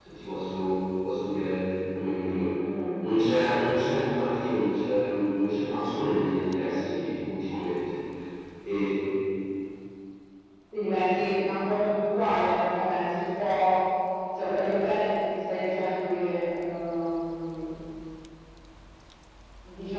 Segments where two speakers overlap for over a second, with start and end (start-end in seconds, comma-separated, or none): none